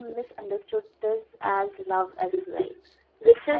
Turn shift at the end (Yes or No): No